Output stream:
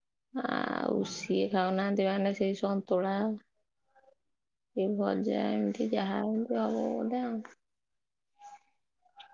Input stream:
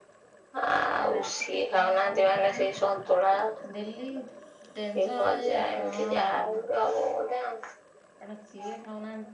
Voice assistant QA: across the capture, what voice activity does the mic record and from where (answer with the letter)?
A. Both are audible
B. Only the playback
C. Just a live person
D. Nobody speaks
A